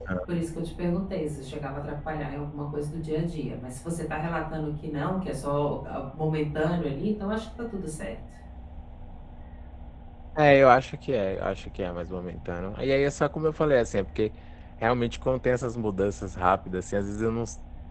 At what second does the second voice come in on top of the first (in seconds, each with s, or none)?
none